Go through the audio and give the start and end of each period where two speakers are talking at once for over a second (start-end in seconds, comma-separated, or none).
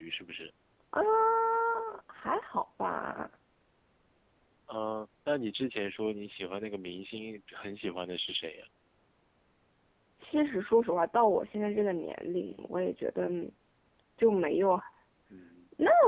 none